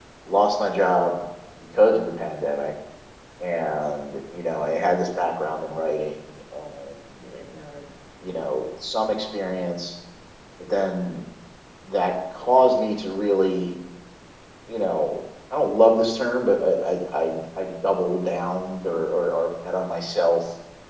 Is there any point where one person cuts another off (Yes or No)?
No